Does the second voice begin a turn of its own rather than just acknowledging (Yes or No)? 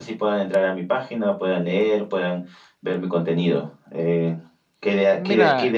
No